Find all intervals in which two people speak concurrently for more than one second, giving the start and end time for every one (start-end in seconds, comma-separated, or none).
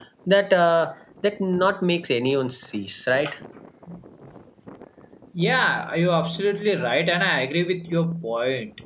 none